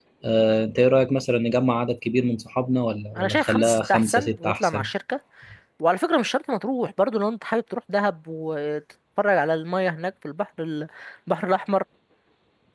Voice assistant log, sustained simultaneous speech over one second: present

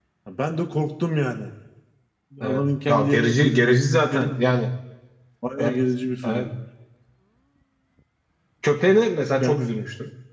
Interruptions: present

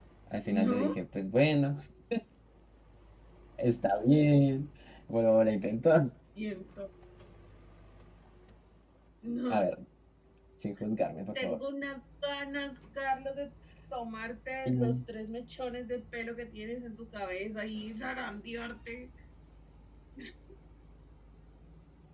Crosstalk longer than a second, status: none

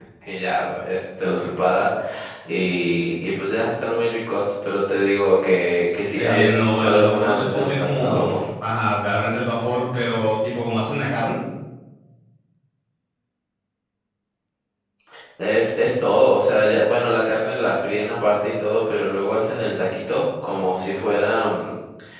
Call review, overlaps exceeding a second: present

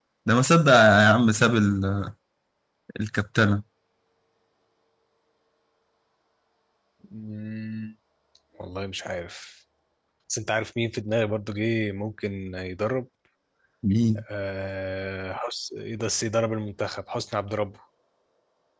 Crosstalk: none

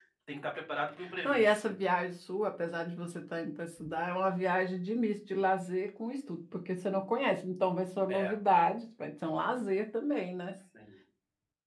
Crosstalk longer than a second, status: none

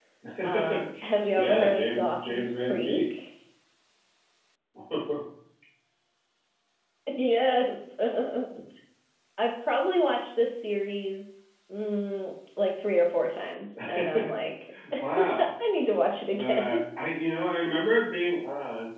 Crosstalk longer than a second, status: present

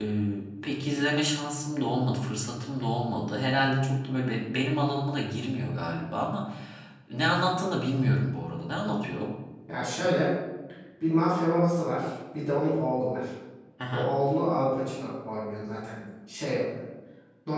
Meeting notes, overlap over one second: none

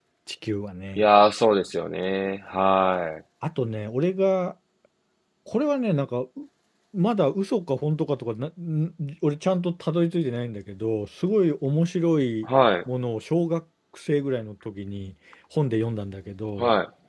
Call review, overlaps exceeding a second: none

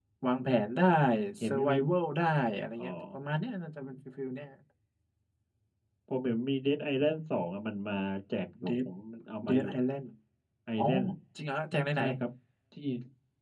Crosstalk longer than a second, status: none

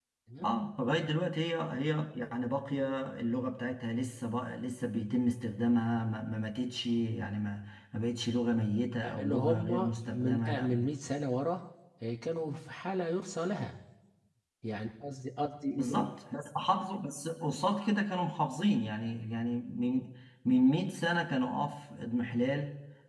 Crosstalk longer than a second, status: present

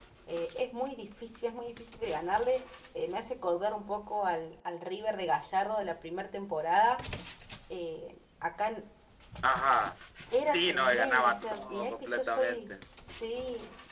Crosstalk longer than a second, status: present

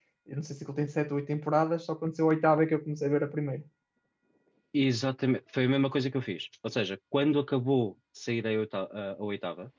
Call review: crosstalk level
none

